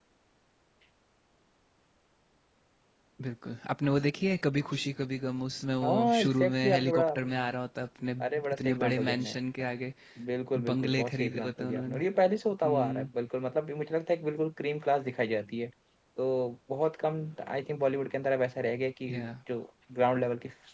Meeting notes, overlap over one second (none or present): present